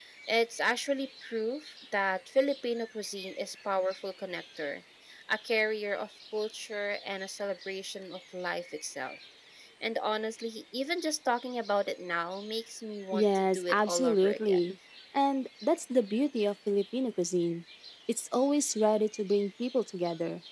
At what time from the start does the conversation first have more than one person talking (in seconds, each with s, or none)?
13.1 s